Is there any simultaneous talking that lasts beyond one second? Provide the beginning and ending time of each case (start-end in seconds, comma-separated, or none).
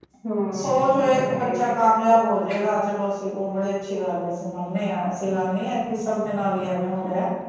0.6-2.2